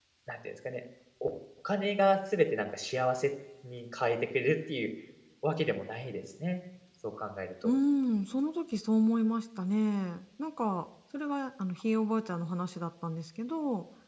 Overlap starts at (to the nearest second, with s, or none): none